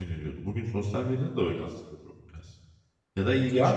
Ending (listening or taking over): taking over